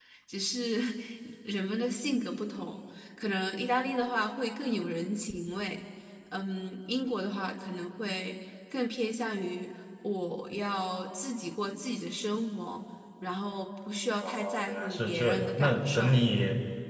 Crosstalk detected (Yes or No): Yes